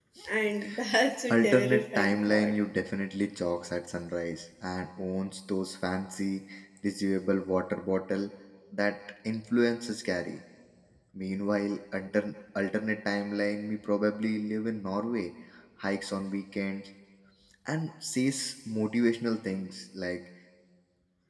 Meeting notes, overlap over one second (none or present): present